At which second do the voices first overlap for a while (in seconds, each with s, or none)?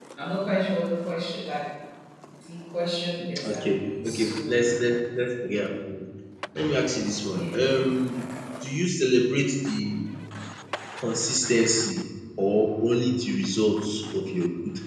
3.5 s